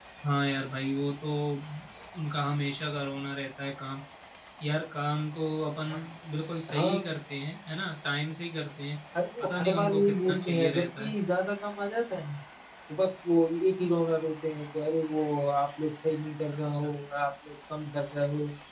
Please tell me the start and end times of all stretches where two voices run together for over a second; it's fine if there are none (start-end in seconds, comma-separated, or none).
9.4-11.1